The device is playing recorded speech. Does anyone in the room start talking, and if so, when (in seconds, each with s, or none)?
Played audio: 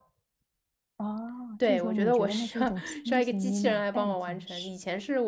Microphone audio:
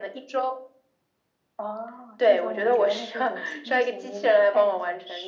none